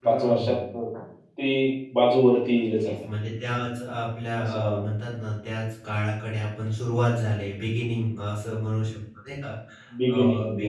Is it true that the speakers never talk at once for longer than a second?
Yes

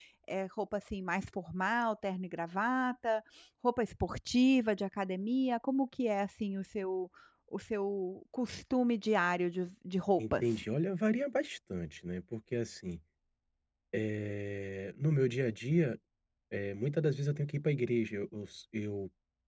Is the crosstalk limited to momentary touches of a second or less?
Yes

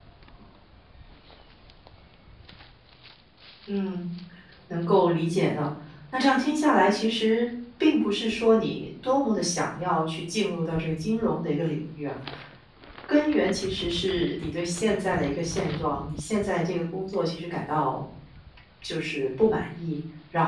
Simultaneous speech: No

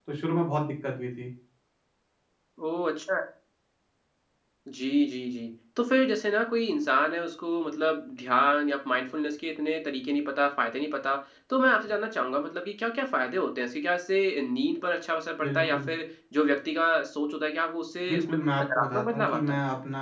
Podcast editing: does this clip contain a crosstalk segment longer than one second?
Yes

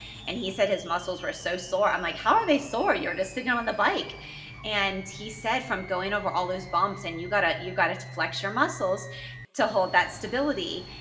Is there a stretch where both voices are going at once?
No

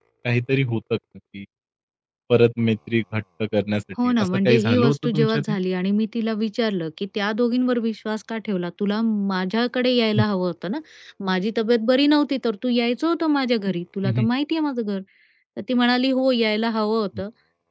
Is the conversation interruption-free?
No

